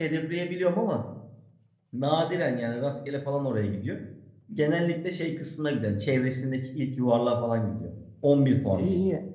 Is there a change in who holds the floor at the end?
Yes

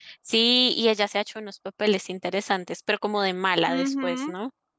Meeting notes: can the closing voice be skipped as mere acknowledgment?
No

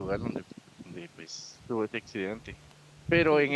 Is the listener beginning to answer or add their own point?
No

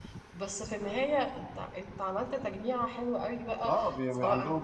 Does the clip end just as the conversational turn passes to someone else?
Yes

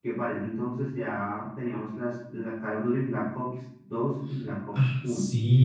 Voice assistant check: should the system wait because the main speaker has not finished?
No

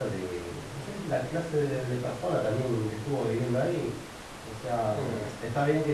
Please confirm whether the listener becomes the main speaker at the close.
No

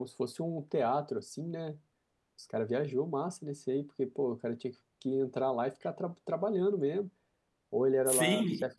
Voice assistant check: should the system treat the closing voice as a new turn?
Yes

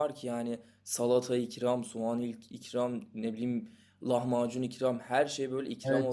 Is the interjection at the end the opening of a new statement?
Yes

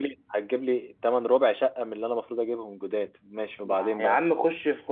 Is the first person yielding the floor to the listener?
Yes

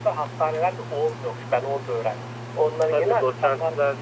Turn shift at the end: Yes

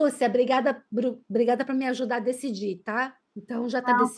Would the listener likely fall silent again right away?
No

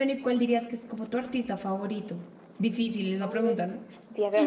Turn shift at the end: Yes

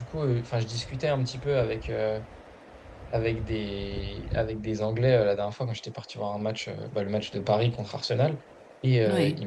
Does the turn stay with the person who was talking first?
Yes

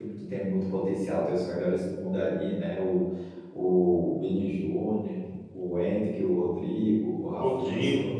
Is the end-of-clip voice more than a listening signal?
No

